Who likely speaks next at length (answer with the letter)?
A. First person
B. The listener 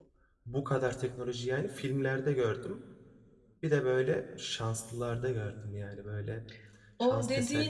B